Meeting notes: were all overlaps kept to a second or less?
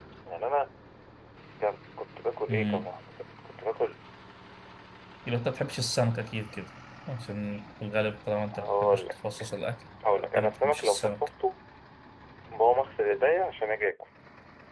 No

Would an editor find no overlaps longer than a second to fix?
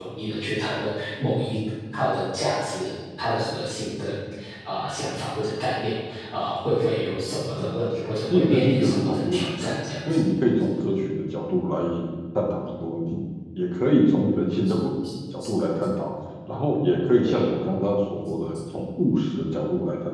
No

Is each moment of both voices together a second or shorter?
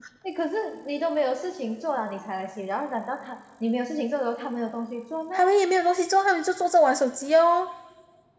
Yes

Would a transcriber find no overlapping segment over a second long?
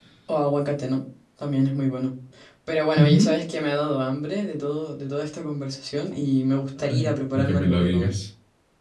No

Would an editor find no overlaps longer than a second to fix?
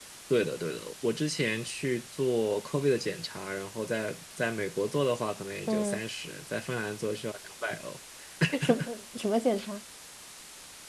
Yes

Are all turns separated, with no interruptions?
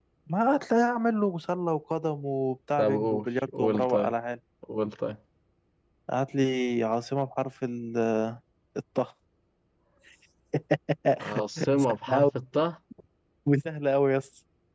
No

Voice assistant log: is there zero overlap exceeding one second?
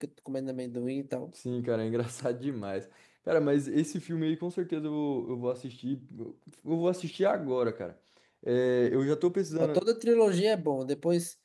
Yes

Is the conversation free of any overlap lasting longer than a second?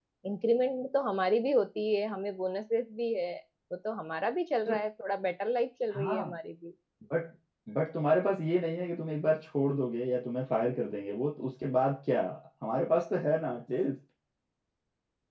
Yes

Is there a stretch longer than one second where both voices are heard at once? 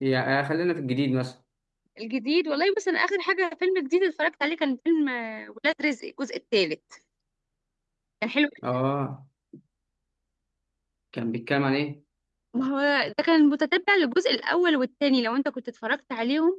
No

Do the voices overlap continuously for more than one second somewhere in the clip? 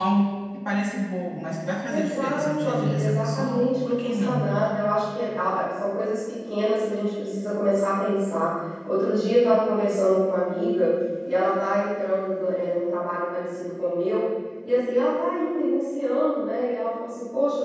Yes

